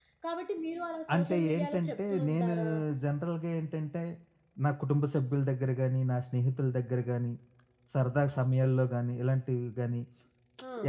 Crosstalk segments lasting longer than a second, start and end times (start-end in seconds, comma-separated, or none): 1.1-2.5